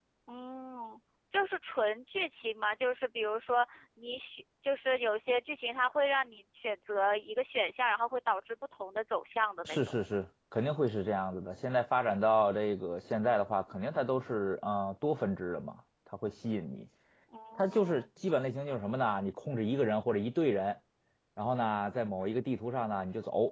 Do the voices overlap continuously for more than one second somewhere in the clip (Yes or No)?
No